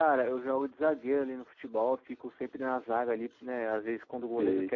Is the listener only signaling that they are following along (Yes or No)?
Yes